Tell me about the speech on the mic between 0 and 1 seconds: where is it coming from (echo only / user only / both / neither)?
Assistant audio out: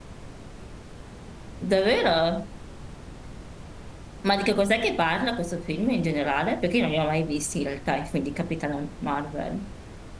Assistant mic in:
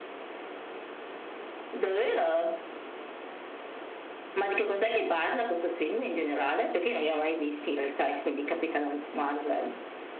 neither